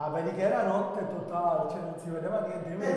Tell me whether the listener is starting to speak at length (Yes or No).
Yes